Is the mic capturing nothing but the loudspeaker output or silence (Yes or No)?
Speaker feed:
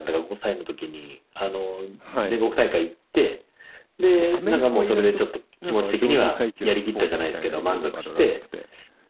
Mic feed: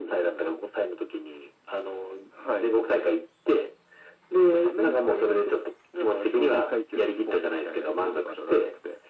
Yes